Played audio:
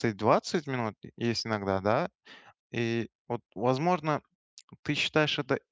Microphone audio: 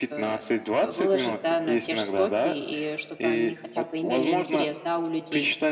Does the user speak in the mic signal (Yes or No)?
Yes